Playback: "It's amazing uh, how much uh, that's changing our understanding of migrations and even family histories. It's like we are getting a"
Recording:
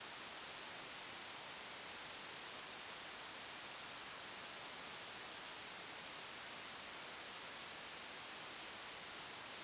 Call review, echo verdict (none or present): none